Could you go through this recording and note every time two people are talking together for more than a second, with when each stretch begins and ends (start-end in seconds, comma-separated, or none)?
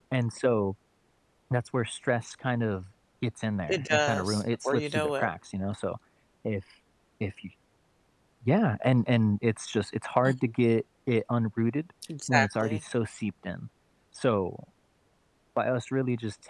3.7-5.3